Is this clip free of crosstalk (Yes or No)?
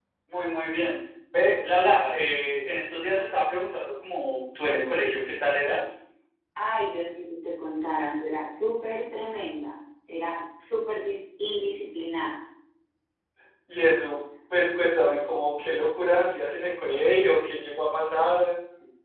Yes